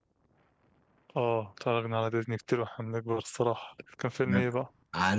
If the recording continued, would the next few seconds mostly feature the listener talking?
Yes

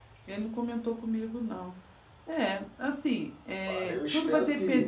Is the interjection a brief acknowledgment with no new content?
No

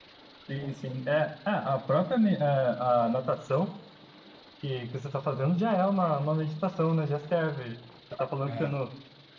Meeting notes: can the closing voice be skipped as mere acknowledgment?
Yes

